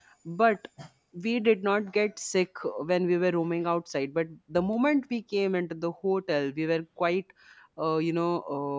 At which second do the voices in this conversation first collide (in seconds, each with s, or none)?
none